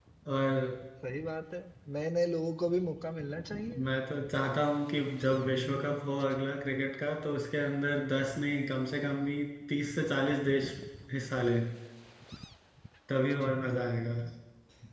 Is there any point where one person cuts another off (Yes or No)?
No